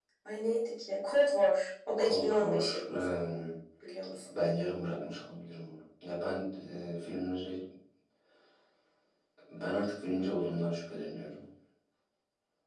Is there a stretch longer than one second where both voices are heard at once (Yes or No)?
Yes